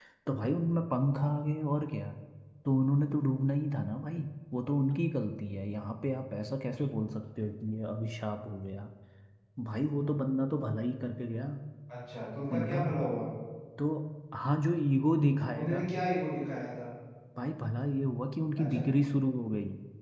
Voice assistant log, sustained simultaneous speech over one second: none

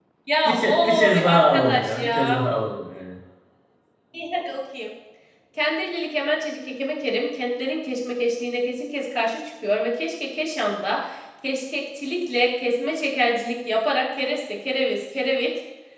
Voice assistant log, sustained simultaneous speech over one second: present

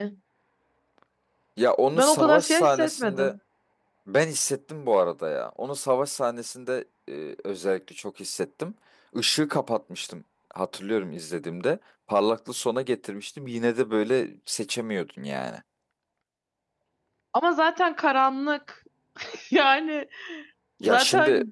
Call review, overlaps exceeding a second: present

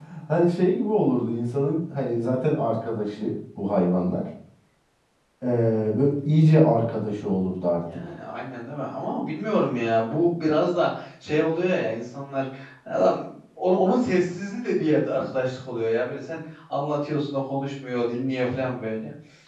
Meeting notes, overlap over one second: none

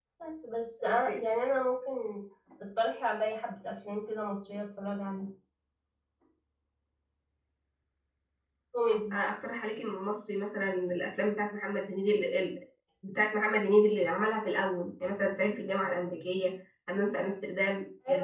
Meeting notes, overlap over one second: none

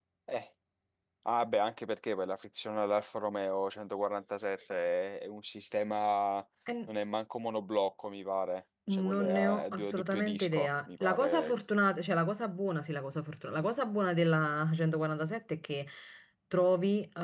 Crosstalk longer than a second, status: present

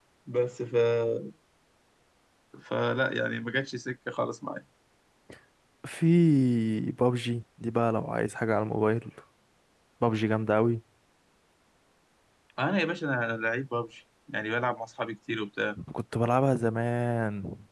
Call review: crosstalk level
none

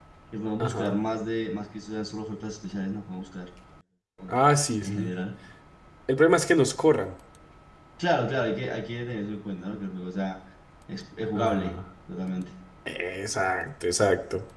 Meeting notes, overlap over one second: none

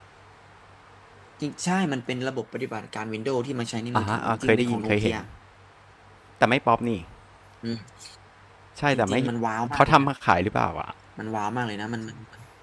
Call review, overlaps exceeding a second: present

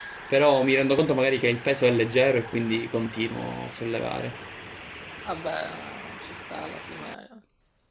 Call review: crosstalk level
none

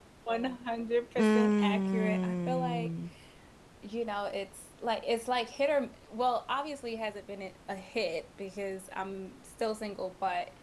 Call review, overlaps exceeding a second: present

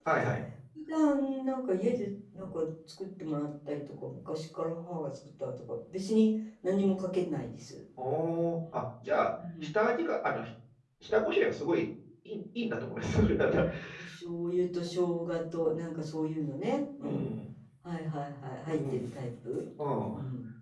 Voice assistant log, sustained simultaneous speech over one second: none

